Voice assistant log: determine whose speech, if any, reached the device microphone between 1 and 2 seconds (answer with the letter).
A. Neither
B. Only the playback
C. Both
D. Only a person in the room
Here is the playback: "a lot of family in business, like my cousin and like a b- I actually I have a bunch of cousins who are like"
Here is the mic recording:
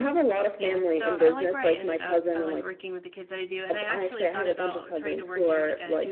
C